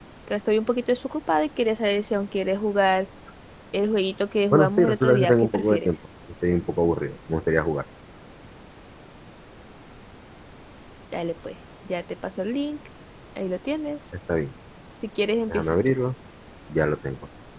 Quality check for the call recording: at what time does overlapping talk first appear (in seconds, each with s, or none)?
4.5 s